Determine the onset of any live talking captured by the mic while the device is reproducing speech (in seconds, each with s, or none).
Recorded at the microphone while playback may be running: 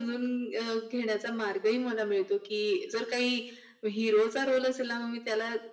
none